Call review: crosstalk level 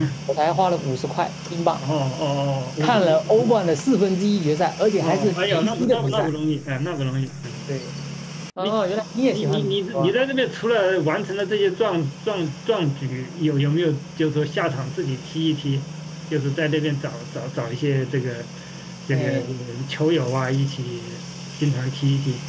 present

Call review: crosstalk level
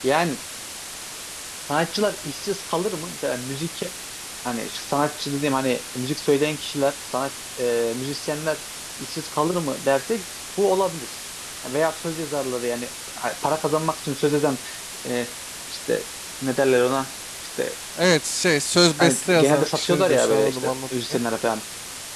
present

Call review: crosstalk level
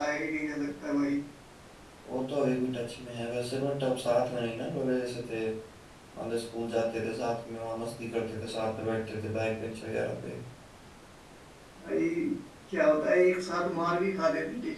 none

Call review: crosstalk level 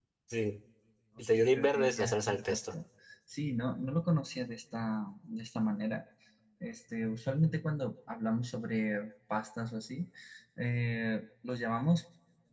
present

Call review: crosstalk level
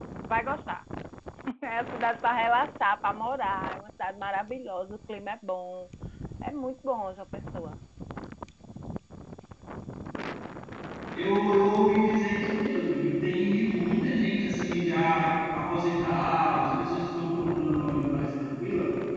none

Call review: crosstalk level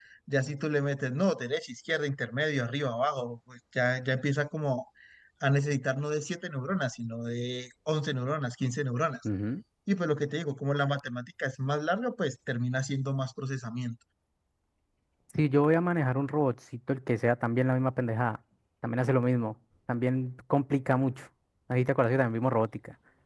none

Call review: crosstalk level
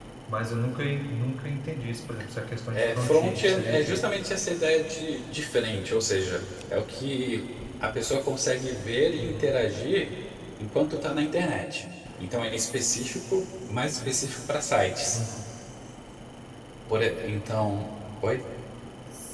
present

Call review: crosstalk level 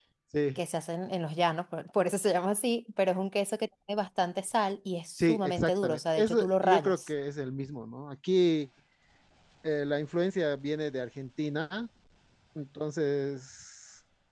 present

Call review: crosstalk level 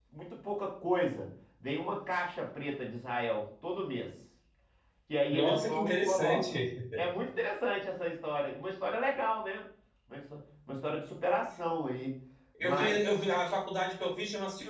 present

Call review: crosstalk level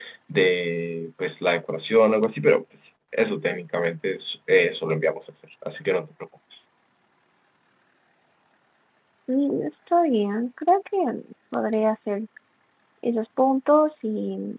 none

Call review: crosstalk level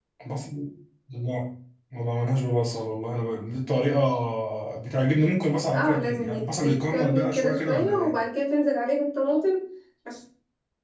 present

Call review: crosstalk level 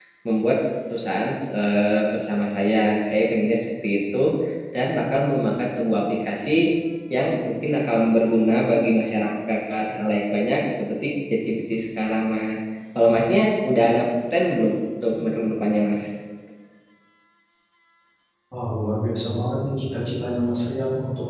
none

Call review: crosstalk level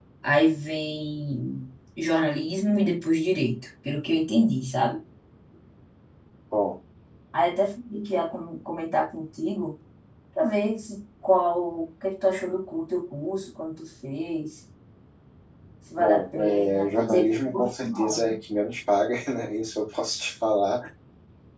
present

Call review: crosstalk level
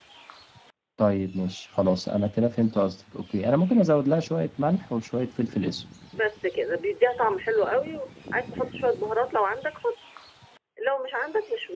none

